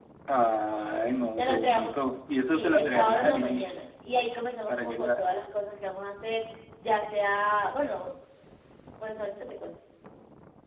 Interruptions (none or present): present